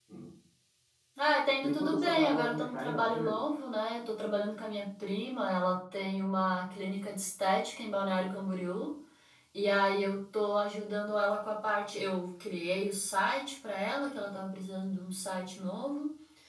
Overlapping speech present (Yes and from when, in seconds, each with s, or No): Yes, from 1.6 s